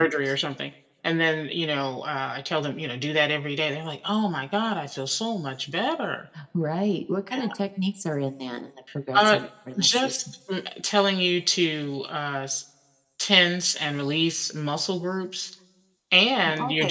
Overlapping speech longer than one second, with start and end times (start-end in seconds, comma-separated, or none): none